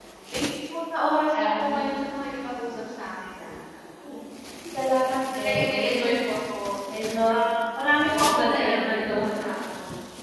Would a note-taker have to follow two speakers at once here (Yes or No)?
Yes